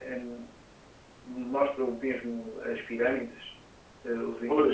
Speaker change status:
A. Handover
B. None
B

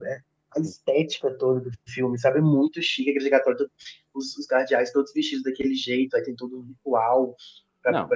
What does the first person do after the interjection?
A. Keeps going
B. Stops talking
A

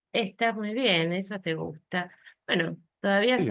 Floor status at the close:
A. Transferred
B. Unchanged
B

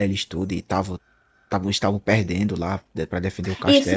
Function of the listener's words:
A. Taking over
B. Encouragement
A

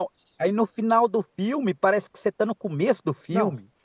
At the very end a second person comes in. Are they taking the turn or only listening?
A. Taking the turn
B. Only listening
A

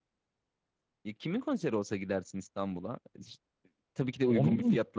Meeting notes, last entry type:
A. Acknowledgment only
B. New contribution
A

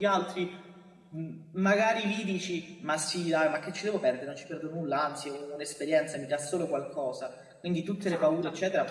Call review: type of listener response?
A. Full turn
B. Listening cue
B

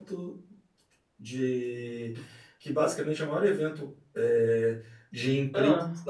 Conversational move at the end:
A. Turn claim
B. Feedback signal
B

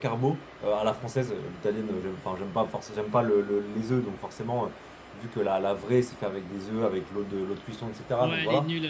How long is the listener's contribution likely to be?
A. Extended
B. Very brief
A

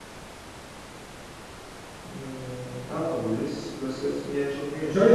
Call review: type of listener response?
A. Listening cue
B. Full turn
B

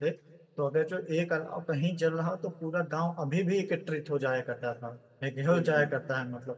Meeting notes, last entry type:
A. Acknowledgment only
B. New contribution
A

